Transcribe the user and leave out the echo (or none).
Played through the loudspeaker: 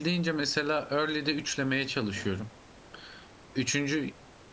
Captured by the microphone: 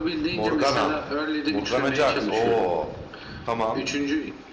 Morgana. Morgana Jax. Oo. Tamam.